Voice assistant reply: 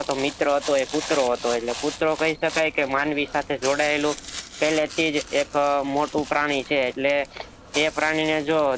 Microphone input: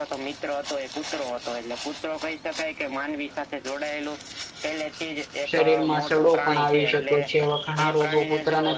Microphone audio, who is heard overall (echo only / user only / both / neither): both